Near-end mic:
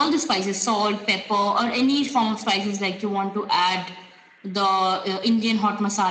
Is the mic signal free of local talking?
Yes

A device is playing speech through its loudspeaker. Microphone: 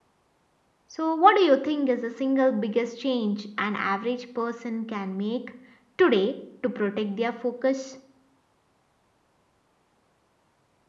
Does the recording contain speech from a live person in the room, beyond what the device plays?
No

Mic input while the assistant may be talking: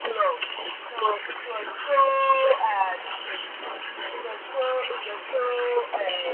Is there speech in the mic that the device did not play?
No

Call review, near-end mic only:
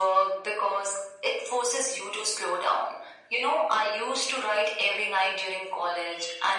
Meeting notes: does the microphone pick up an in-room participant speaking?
No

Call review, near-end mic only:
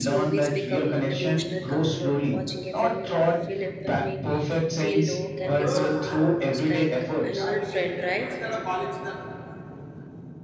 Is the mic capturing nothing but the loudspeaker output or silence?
No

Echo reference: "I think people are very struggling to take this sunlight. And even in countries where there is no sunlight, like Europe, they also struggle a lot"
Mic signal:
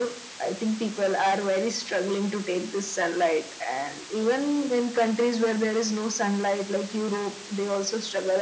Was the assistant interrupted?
No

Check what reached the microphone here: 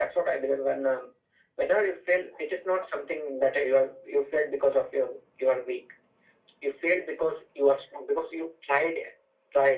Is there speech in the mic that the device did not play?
No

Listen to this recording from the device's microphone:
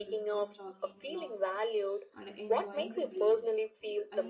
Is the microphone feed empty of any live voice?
No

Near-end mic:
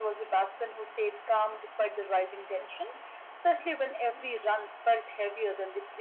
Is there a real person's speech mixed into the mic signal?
No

